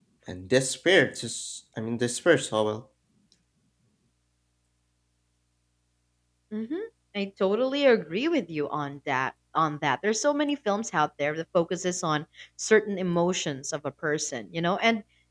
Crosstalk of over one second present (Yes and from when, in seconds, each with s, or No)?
No